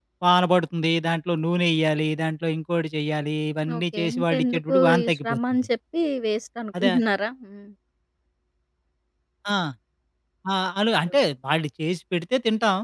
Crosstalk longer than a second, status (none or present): present